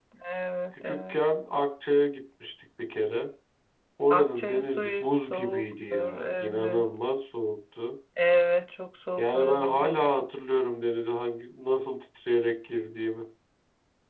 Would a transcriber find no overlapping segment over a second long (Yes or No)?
No